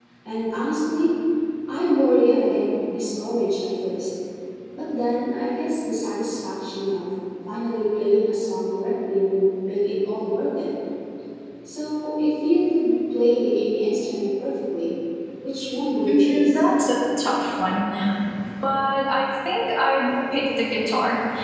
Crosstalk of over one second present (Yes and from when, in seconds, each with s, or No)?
No